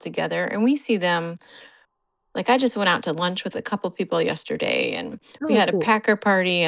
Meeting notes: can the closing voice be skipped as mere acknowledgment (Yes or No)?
Yes